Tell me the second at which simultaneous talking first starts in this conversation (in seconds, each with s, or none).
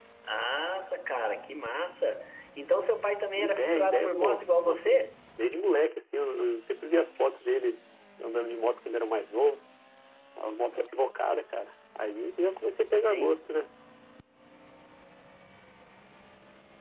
3.4 s